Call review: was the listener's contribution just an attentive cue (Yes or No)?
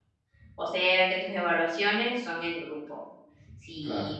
Yes